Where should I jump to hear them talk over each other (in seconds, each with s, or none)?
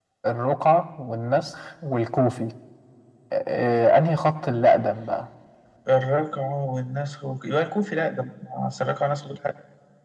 none